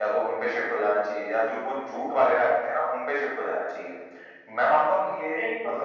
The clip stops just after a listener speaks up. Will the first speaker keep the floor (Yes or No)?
Yes